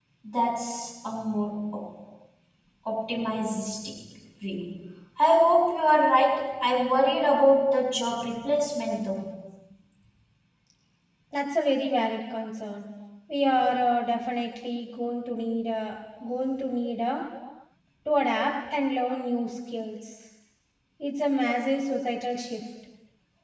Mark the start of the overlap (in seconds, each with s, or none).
none